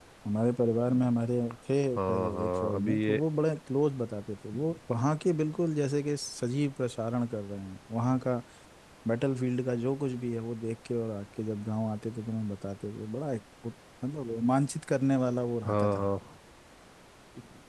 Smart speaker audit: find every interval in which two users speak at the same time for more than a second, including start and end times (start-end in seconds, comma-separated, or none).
2.0-3.2